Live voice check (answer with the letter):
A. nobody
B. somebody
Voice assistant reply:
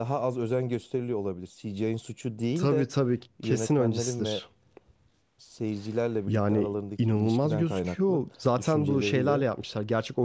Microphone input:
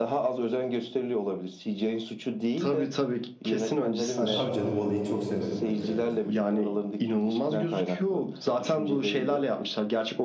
B